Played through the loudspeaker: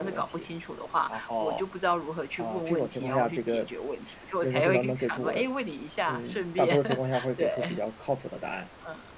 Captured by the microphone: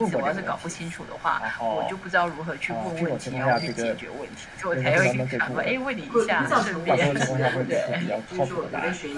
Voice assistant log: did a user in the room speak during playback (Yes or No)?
Yes